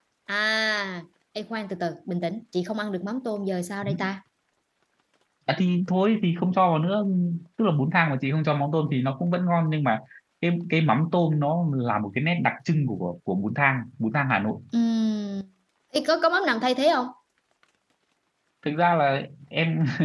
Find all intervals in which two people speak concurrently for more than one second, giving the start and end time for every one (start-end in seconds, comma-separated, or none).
none